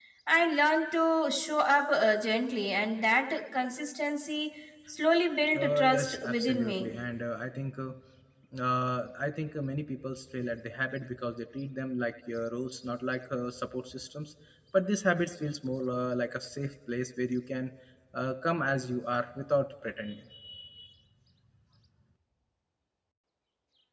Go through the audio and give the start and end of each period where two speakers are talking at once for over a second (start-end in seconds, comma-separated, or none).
5.5-6.9